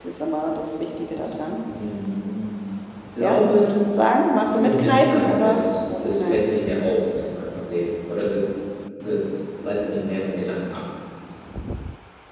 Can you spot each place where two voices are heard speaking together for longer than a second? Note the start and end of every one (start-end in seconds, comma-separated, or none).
4.6-6.5